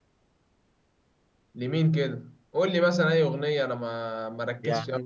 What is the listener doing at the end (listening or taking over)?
taking over